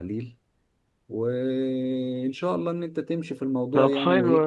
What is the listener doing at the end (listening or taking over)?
taking over